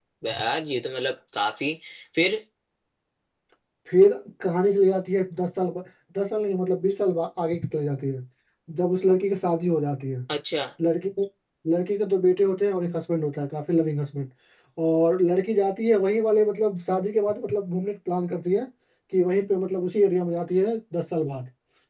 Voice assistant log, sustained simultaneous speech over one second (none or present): none